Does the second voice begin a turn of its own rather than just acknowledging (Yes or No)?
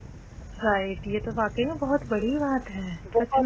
Yes